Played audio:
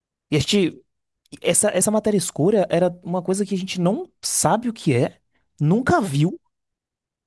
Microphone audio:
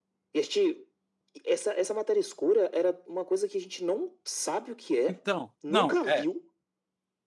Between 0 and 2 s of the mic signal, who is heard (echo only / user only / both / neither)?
echo only